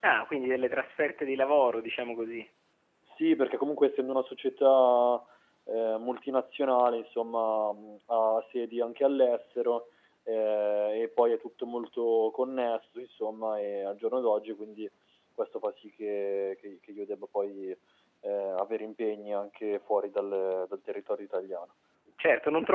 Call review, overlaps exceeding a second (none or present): none